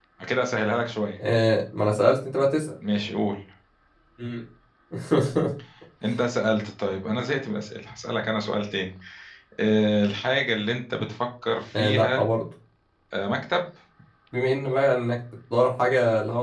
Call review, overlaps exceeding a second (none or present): none